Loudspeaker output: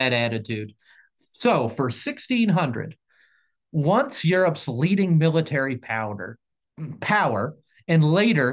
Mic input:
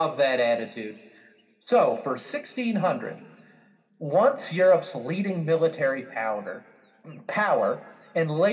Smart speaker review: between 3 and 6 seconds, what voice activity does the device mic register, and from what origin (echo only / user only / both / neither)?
echo only